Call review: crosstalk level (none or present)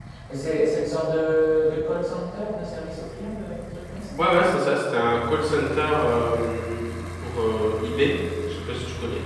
none